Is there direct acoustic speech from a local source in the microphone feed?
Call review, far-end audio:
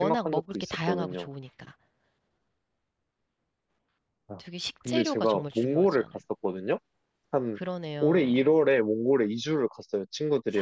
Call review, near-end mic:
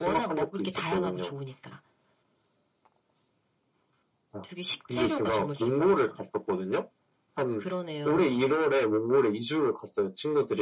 No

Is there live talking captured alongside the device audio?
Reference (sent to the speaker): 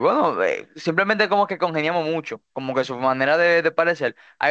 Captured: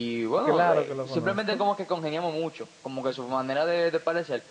Yes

